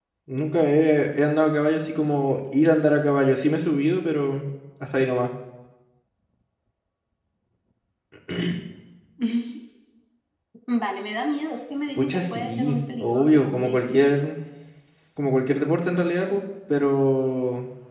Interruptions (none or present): present